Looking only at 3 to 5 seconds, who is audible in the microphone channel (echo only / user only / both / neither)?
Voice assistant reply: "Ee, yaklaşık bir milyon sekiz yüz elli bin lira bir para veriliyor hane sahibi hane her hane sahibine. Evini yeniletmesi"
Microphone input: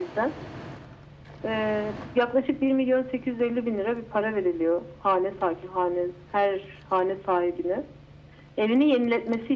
echo only